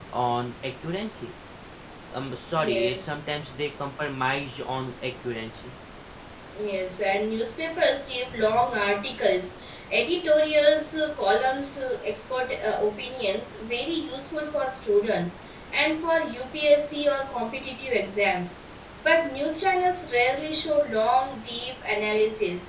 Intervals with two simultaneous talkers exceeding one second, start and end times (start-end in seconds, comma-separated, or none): none